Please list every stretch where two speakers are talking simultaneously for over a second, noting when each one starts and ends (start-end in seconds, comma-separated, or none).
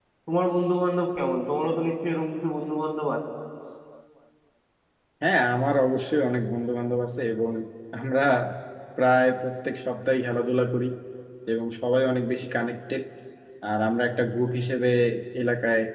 none